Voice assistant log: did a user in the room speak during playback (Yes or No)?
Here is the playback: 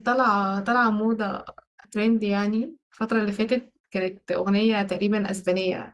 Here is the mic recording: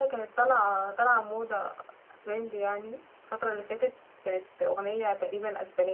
No